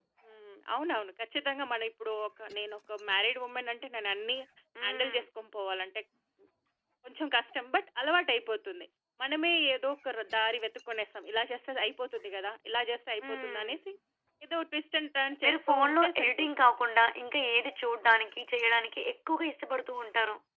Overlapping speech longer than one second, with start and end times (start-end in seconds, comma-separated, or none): 15.4-16.8